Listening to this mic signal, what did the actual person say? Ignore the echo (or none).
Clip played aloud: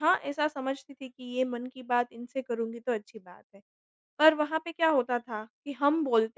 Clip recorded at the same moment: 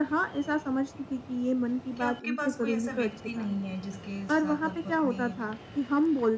कि आपके पास कोई ऐसा व्यक्ति नहीं है जिसके साथ आप अपनी